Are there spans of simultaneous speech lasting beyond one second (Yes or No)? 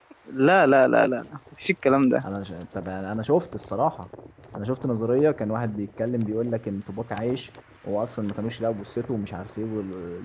No